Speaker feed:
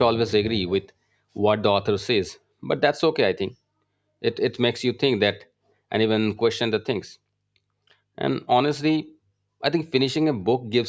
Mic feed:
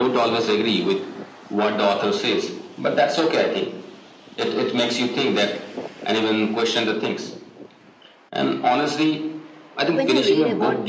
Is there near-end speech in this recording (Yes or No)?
Yes